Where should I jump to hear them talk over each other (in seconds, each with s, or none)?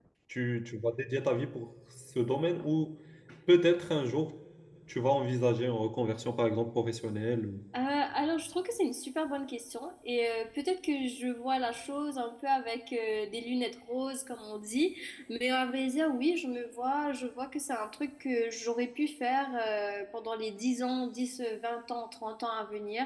none